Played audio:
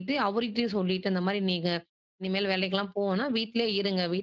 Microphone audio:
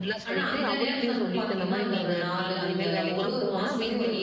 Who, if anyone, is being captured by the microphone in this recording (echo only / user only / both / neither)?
both